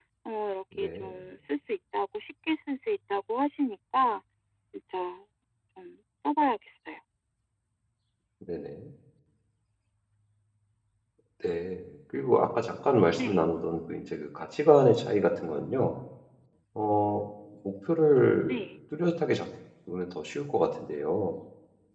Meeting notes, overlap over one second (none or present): none